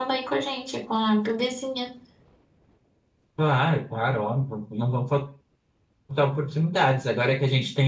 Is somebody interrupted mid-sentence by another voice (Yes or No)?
No